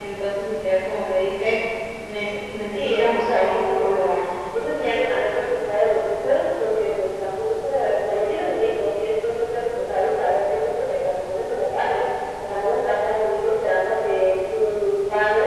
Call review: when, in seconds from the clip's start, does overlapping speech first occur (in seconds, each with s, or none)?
2.7 s